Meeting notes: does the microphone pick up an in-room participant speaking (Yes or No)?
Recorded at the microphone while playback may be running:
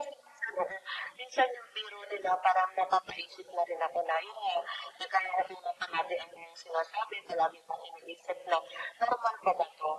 No